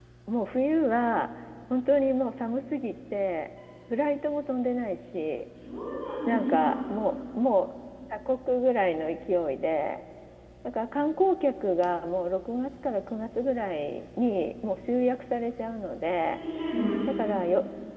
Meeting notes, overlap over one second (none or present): none